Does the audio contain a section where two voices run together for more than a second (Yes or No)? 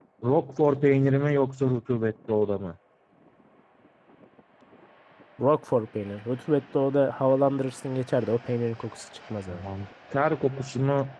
No